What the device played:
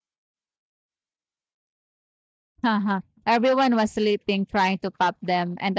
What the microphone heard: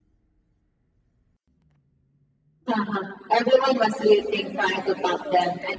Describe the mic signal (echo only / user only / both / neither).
both